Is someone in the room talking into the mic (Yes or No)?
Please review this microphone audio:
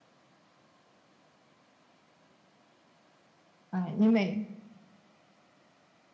Yes